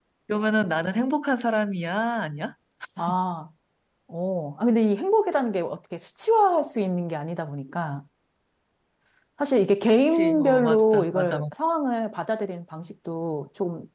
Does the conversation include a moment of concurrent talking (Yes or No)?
Yes